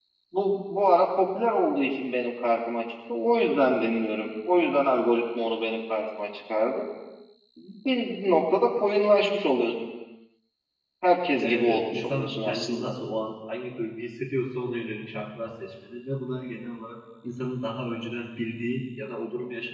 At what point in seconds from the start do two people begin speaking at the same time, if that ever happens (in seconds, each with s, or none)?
11.4 s